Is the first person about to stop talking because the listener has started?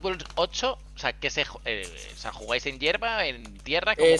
Yes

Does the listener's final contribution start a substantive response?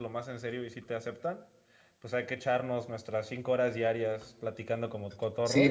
Yes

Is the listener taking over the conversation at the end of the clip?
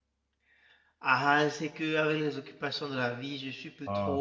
No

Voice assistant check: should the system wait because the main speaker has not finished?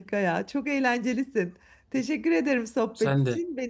Yes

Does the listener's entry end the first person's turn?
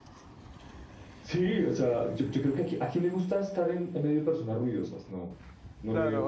Yes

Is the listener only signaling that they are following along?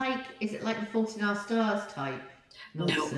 No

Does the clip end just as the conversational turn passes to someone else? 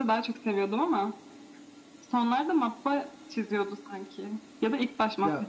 Yes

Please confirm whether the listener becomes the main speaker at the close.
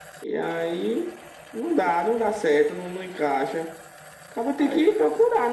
No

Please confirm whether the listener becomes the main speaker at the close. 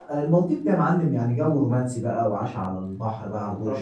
Yes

